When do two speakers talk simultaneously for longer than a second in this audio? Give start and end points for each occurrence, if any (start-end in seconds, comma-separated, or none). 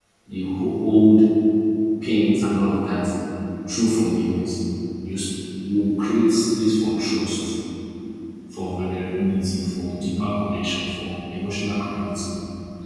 none